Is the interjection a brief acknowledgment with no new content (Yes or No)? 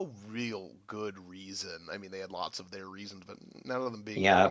No